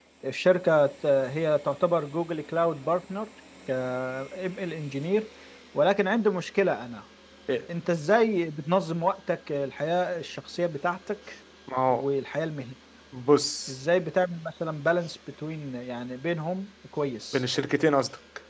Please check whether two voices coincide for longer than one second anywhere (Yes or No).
No